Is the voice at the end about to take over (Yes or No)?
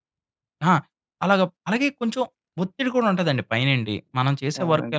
No